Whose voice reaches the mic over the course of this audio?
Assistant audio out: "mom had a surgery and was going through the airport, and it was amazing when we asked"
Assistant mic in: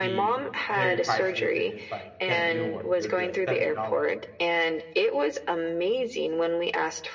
both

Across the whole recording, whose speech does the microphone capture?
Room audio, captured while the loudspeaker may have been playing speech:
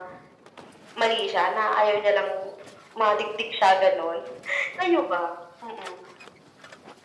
echo only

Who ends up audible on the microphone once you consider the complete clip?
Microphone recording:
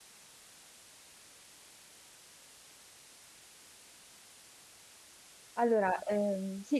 user only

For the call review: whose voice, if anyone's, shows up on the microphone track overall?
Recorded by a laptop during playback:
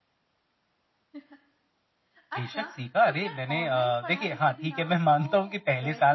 both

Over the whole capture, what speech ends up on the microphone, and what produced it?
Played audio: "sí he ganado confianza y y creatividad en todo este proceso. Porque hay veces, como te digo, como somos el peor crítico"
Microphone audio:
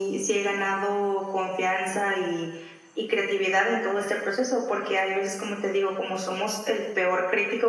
echo only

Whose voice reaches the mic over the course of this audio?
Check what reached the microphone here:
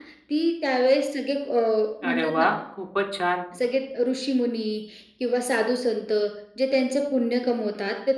both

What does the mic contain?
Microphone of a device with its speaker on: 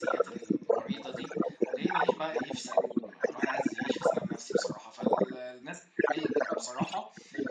both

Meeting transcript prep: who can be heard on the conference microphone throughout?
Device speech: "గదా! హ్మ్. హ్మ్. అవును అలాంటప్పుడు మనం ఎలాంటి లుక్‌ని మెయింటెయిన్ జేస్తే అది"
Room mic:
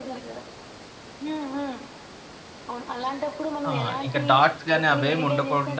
both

